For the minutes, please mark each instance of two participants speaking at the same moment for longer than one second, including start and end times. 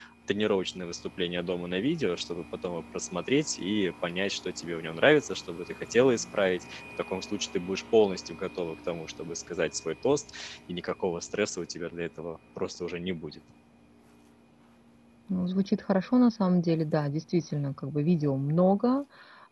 none

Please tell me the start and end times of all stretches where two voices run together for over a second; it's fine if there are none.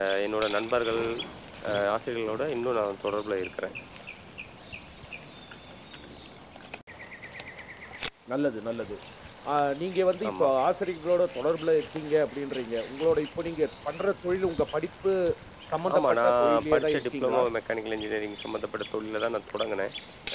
15.9-17.4

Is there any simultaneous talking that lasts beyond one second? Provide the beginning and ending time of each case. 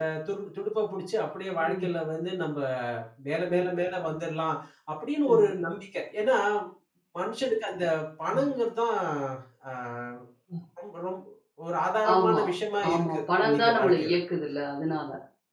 12.9-14.1

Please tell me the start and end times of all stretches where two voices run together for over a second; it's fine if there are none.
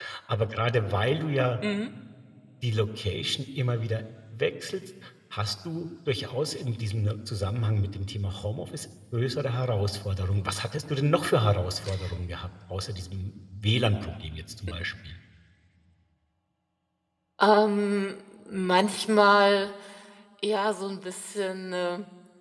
none

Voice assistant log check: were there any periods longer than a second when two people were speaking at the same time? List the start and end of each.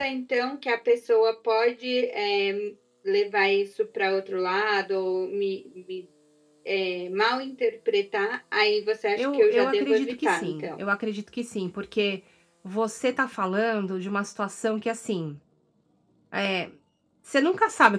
9.2-10.7

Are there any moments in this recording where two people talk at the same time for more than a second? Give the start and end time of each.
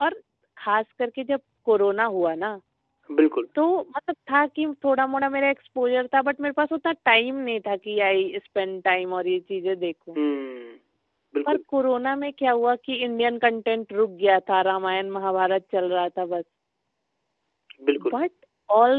none

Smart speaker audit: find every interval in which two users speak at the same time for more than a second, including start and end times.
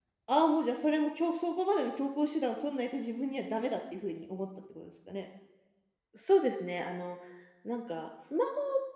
none

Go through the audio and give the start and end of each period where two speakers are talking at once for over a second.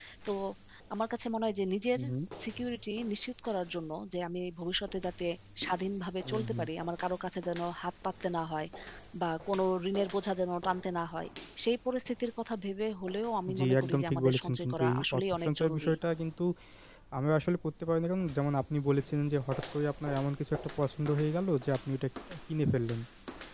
13.6-15.9

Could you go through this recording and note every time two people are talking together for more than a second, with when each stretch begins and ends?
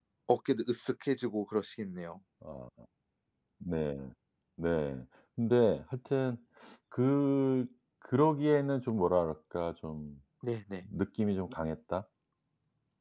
none

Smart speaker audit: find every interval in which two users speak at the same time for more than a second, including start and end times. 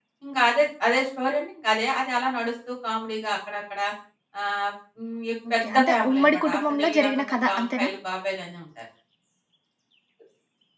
5.6-7.9

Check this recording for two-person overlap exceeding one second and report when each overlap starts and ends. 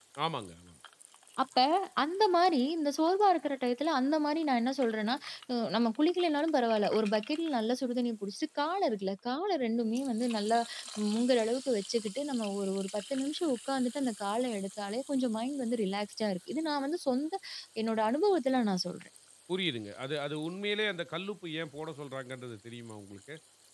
none

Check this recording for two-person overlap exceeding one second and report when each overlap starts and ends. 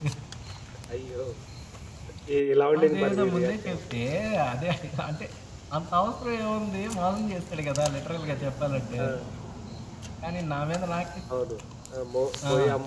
2.8-4.0

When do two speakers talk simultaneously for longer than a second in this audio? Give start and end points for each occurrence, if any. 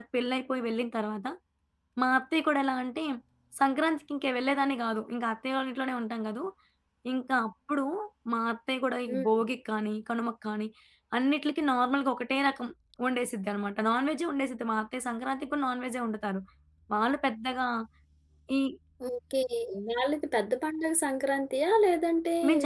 none

